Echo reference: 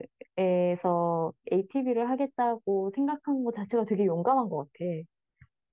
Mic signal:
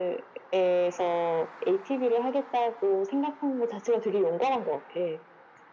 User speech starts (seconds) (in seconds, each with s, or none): none